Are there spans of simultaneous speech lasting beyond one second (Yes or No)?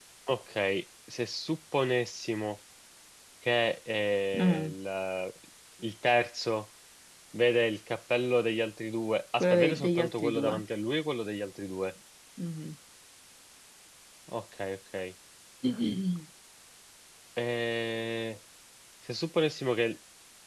Yes